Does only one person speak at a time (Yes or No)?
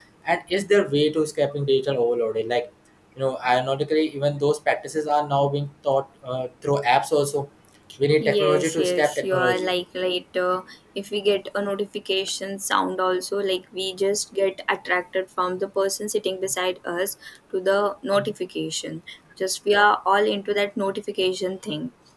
No